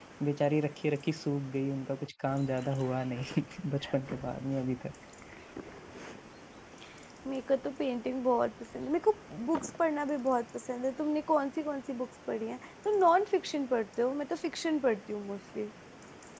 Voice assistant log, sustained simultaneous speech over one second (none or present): none